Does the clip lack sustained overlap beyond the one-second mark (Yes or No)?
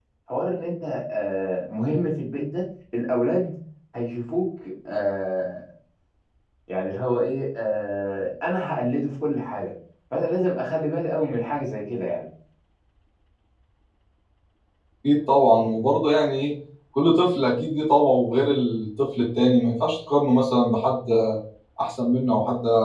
Yes